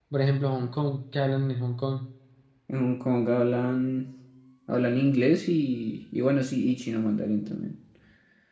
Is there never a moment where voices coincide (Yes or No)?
Yes